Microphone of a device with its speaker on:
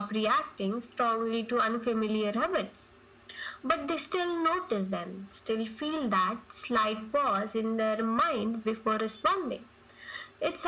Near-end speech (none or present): none